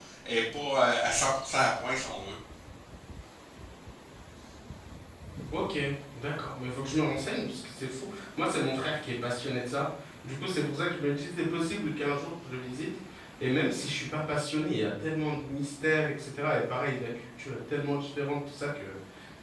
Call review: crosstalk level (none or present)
none